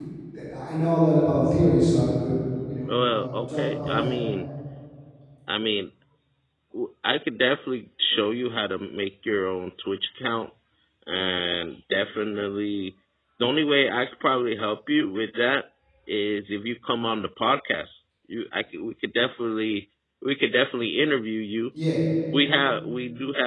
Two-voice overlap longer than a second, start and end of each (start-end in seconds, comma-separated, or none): 2.9-4.1